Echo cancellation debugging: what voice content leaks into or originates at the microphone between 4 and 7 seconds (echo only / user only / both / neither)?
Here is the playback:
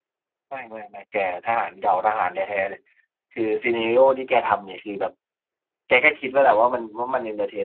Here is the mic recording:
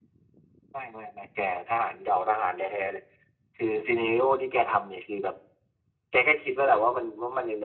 echo only